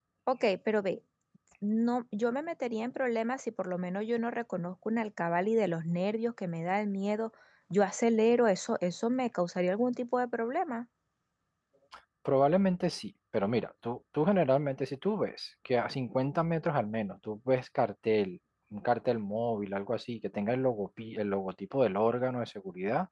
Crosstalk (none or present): none